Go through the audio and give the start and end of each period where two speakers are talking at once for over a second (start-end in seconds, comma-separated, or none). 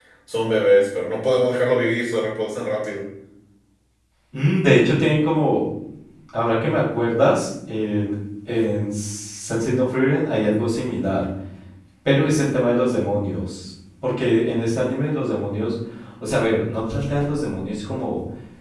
none